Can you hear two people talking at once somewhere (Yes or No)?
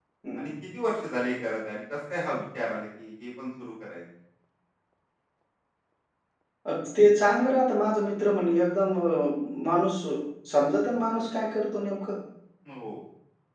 No